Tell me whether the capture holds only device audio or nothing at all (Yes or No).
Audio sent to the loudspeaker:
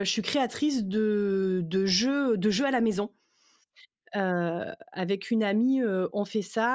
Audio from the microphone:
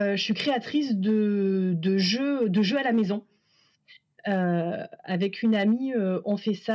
Yes